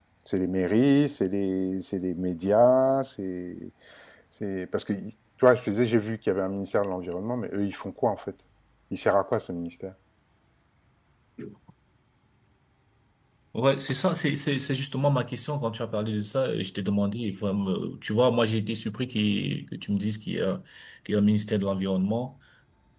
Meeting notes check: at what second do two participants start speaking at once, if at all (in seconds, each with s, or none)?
none